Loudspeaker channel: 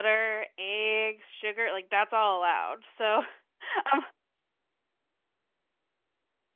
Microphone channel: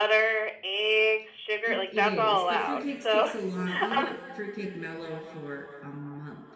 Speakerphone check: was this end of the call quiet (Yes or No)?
No